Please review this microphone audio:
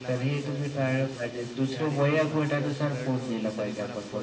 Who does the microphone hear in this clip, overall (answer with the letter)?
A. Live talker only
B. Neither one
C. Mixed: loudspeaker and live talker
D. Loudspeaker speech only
C